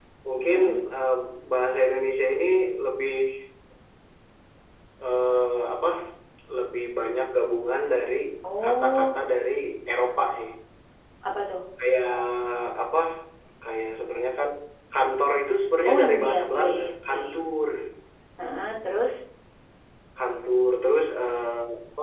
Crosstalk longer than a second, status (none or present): present